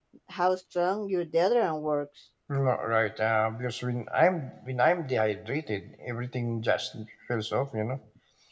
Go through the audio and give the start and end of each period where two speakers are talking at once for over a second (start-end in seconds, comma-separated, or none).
none